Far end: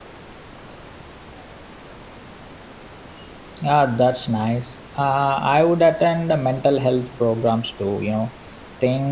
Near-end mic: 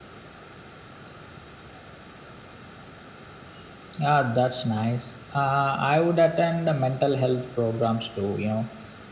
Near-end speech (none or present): none